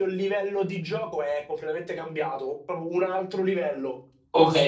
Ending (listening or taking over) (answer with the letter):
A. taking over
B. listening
A